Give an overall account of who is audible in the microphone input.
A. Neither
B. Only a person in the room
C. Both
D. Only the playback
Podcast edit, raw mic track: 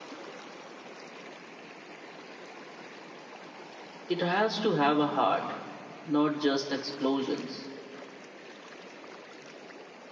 B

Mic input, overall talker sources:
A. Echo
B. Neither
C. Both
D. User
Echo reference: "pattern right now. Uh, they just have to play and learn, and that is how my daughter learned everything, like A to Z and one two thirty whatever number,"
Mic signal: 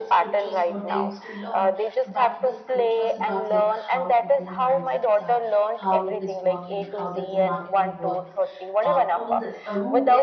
C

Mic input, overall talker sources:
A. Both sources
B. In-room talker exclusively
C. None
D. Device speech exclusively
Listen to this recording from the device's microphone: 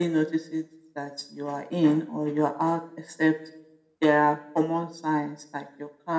D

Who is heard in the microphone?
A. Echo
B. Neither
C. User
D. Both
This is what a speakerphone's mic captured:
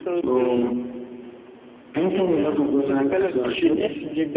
D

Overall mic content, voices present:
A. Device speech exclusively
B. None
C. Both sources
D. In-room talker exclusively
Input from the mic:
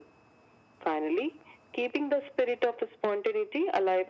A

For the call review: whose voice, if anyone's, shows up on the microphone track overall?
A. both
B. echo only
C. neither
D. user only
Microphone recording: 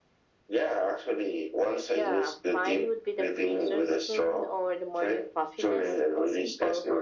B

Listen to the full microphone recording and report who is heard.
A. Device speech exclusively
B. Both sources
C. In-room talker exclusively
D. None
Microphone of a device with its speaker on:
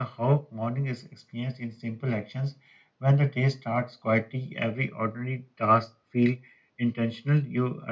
A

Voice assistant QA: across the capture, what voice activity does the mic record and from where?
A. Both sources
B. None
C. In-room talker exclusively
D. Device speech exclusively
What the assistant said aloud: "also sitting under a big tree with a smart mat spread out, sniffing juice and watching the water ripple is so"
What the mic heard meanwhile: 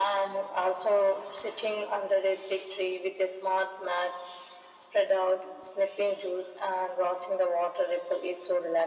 D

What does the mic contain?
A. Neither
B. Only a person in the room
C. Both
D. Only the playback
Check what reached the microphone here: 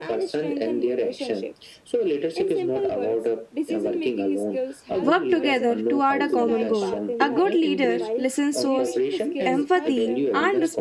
C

